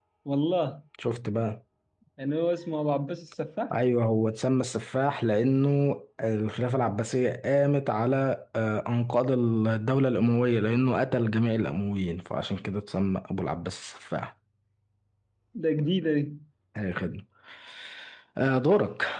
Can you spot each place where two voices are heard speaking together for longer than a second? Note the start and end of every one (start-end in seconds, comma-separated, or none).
none